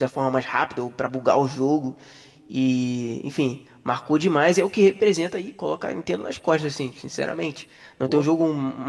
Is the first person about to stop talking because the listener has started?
No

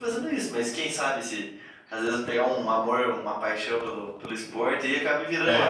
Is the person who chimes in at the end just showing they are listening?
No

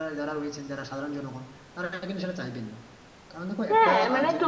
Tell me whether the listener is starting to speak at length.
Yes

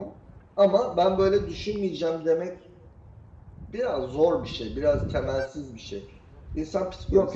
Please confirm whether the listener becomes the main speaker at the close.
Yes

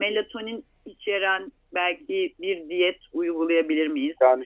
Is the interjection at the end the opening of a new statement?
No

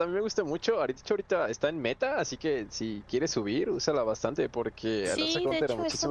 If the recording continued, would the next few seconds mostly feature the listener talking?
Yes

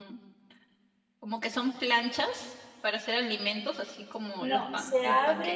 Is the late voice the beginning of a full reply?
Yes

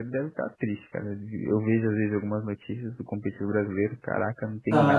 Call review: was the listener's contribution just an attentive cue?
No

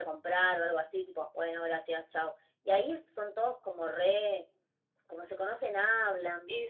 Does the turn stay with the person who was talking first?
No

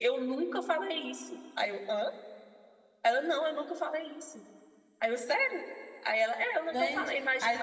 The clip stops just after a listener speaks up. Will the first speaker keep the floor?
No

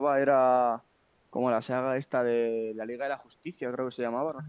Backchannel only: No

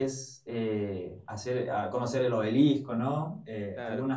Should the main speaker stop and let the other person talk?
No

